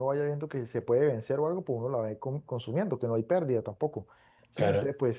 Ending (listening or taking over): listening